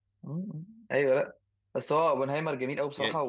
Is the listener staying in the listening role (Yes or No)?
Yes